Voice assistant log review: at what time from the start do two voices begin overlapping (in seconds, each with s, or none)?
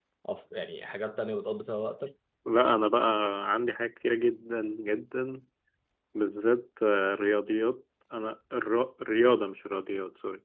none